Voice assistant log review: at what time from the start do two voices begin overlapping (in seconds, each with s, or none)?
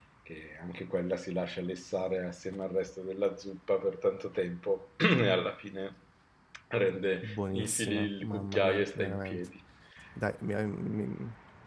7.2 s